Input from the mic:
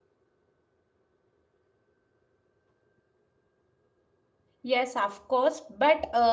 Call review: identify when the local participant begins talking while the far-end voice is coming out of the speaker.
5 s

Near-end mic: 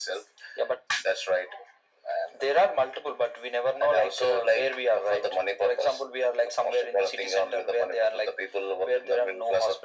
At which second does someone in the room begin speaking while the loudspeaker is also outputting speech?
none

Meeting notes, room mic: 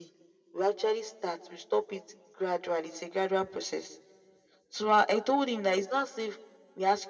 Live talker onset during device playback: none

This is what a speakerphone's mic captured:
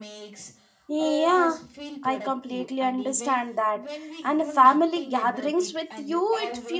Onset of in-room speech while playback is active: 1 s

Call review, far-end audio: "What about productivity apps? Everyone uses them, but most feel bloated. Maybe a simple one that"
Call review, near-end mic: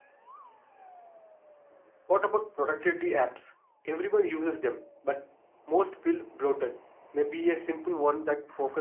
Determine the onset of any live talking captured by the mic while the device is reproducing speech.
none

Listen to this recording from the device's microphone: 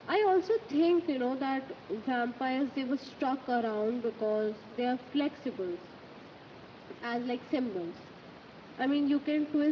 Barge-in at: none

